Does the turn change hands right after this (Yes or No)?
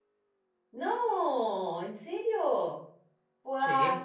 No